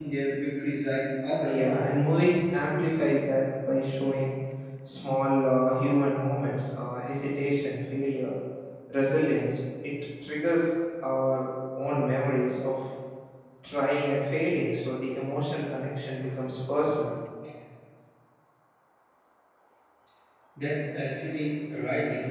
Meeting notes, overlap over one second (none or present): none